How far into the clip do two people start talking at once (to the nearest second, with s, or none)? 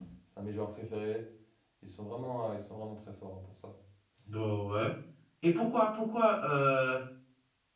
none